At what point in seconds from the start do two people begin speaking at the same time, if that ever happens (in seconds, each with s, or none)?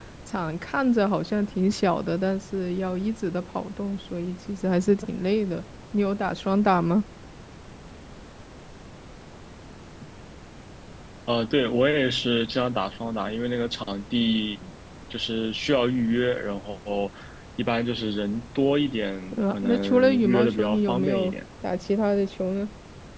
19.3 s